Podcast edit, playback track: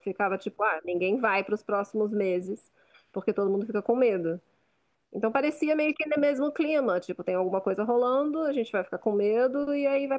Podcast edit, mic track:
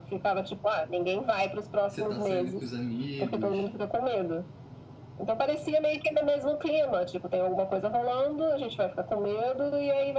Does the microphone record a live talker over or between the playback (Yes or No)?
Yes